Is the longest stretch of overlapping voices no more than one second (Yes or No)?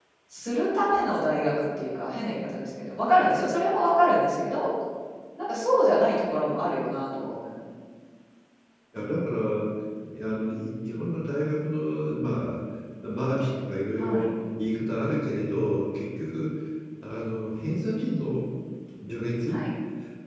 Yes